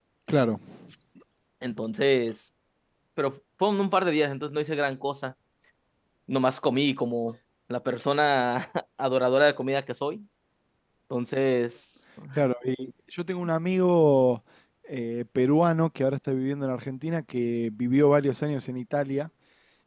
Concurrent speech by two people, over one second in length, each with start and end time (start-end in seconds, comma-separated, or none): none